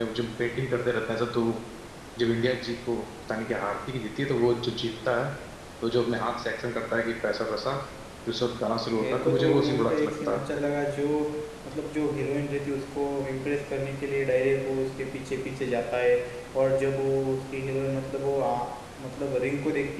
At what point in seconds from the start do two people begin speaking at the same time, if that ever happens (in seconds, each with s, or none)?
8.9 s